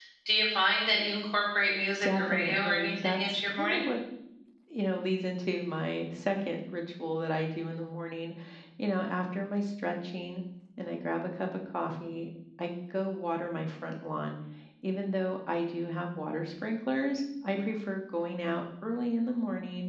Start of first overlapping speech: 2.0 s

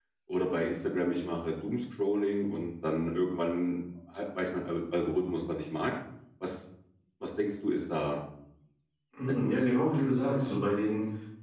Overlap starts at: 9.4 s

